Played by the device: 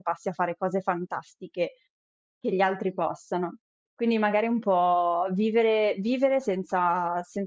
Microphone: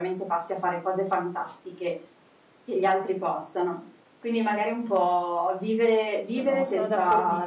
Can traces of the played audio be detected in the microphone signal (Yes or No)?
Yes